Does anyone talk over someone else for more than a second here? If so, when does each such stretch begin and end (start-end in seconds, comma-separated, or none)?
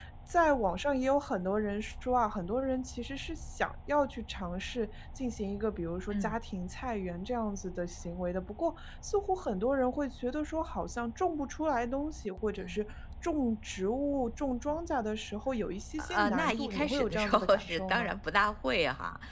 16.0-18.1